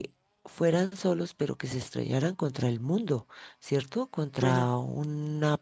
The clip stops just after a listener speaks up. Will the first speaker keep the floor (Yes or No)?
Yes